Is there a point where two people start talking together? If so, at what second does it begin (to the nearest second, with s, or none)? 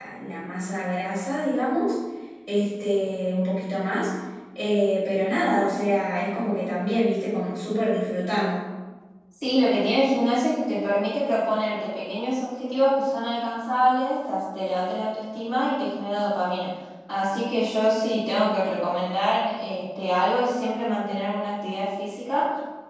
none